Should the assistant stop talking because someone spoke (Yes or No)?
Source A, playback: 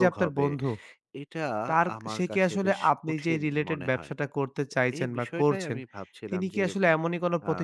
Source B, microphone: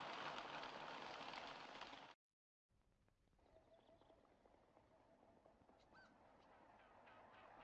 No